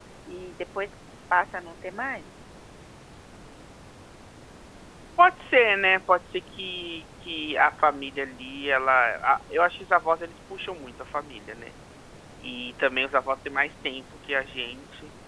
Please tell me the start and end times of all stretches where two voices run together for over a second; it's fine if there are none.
none

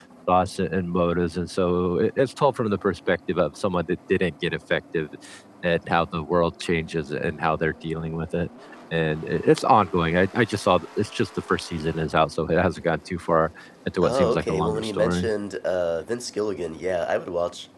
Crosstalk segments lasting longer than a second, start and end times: 14.0-15.3

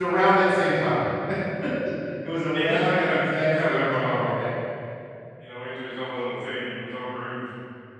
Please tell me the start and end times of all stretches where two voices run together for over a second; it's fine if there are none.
2.5-4.5

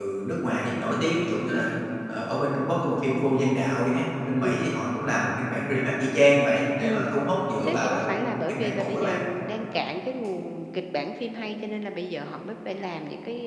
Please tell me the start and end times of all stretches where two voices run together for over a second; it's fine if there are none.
7.6-9.2

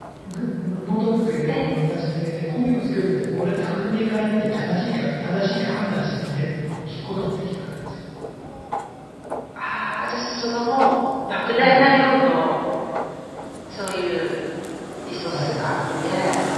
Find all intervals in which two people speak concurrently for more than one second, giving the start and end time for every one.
none

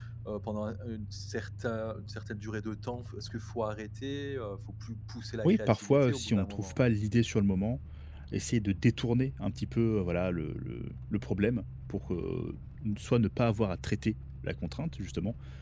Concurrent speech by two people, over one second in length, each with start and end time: 5.4-6.8

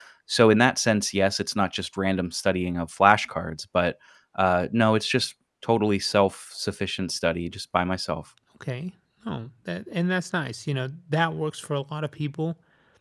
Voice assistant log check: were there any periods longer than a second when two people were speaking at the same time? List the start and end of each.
none

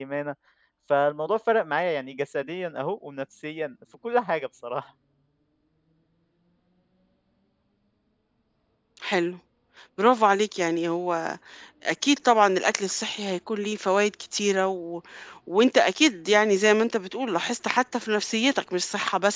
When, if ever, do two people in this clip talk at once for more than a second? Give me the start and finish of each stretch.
none

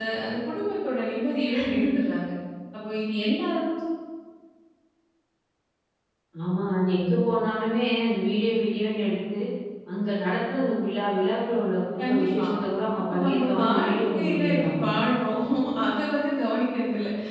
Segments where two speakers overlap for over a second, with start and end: 13.1-14.8

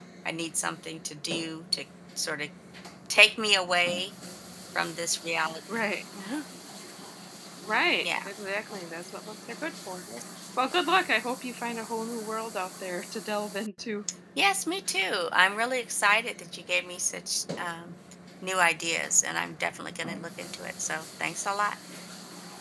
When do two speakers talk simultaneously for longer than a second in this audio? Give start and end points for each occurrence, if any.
none

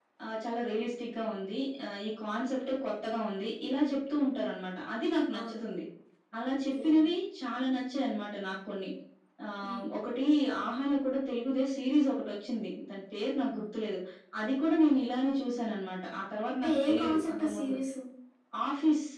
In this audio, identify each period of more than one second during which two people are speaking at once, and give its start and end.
16.6-17.8

